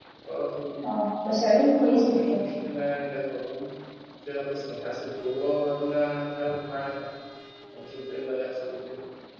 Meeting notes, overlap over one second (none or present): none